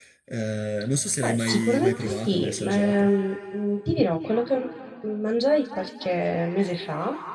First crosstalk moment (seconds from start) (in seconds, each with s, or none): 1.2 s